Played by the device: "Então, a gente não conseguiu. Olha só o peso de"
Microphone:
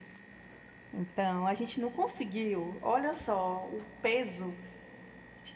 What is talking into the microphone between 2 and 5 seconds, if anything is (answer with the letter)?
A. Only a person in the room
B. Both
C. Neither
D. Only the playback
D